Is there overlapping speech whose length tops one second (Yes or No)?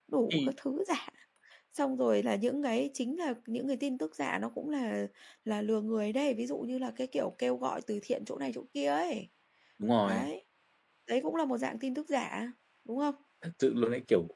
No